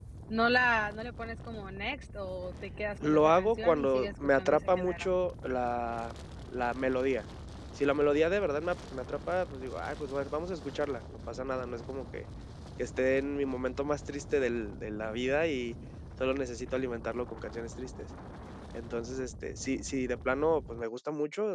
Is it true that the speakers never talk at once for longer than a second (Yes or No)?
No